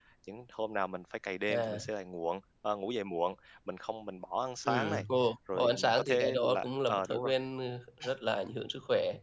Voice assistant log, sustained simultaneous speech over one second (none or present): present